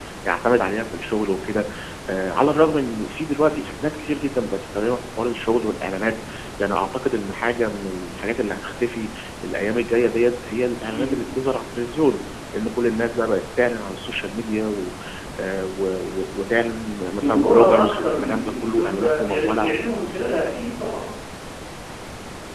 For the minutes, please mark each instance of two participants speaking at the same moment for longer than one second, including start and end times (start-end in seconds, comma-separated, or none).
17.2-19.7